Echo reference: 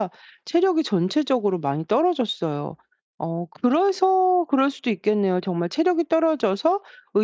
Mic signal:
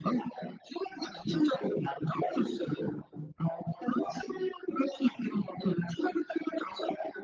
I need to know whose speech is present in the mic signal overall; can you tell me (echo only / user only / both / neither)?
echo only